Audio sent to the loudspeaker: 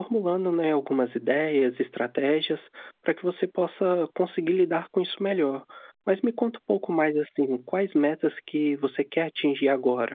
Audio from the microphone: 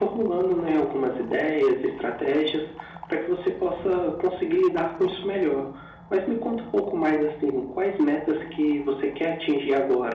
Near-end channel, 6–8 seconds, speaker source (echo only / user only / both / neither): echo only